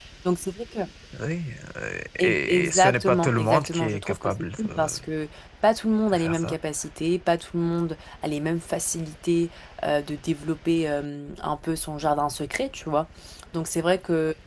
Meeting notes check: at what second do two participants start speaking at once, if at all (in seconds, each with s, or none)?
2.2 s